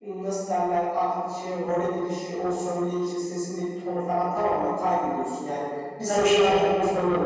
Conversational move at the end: listening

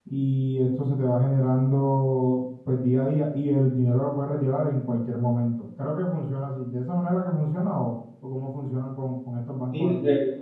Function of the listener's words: taking over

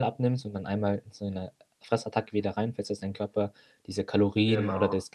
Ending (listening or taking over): listening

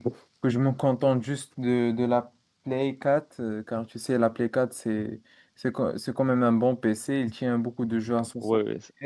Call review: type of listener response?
taking over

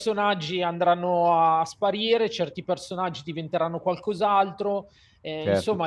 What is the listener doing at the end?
taking over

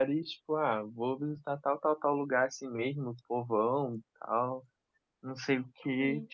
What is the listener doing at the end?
listening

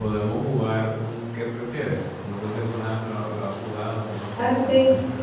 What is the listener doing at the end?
taking over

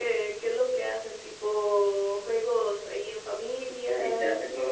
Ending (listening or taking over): taking over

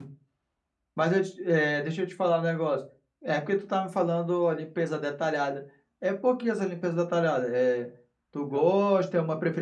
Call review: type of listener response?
listening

